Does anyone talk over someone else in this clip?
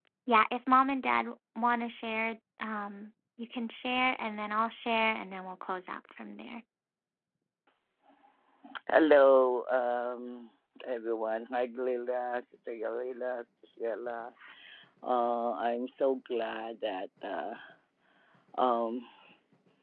No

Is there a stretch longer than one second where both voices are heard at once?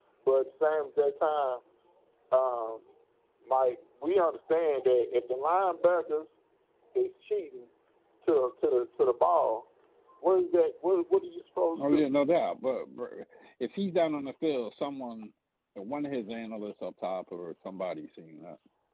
No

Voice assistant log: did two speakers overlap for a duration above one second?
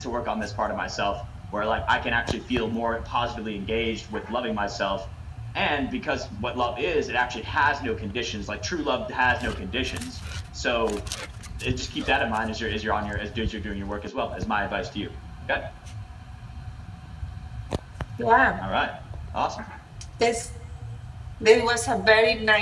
No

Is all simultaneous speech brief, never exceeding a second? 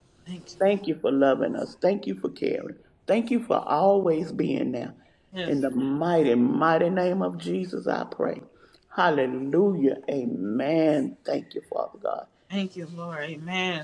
Yes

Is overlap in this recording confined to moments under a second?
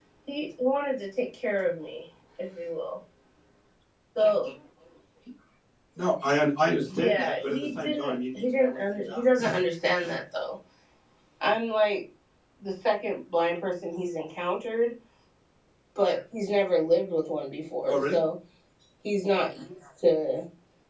No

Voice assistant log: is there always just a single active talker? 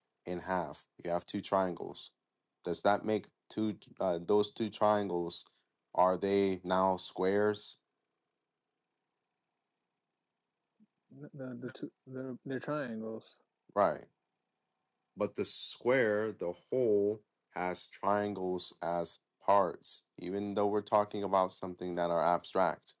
Yes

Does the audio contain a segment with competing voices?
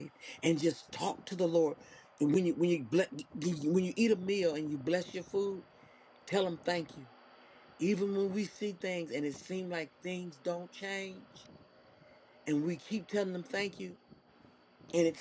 No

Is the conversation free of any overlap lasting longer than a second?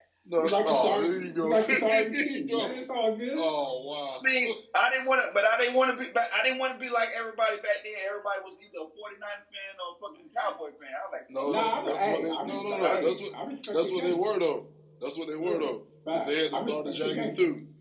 No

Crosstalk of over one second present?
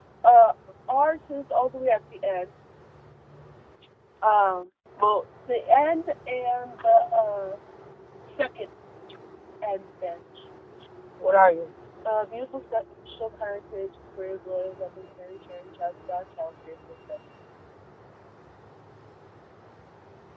No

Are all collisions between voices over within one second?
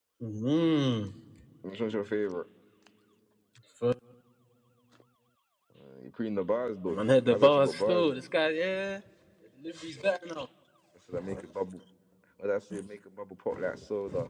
No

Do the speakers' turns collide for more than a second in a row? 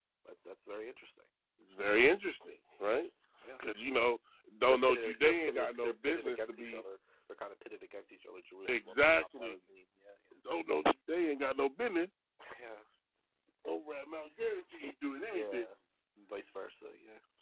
Yes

